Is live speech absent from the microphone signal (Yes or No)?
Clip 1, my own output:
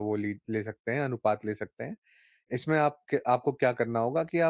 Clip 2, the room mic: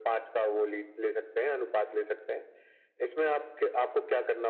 Yes